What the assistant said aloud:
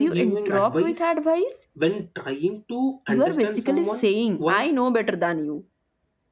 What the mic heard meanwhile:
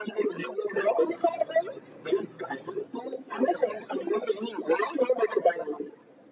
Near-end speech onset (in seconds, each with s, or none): none